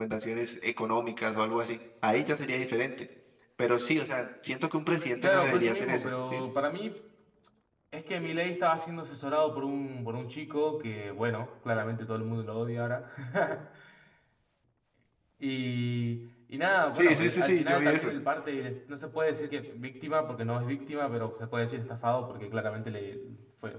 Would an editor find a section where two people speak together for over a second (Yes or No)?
Yes